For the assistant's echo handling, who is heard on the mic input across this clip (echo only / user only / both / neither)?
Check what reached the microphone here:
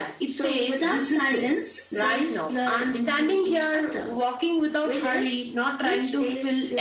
echo only